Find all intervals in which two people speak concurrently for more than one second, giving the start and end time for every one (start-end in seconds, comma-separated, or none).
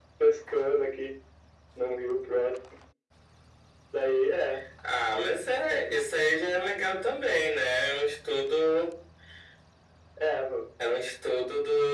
none